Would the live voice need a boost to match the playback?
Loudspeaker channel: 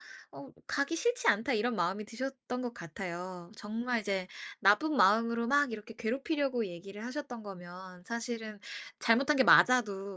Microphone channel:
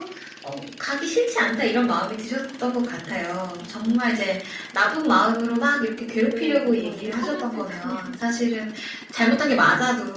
Yes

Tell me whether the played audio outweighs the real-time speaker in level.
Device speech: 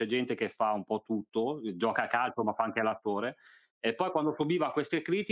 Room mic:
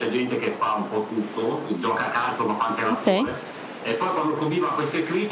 No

